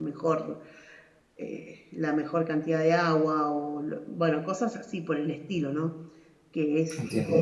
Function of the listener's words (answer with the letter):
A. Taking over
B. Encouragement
B